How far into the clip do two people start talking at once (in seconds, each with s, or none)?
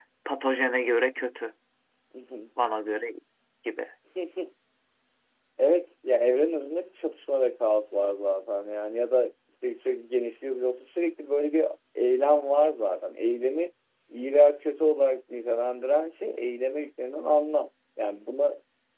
none